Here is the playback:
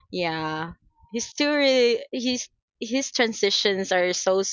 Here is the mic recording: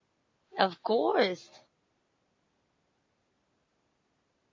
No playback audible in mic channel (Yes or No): Yes